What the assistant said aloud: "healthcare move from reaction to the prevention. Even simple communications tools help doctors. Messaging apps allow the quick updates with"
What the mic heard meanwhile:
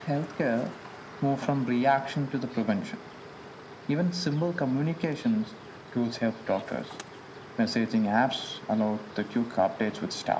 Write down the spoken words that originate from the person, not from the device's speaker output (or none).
none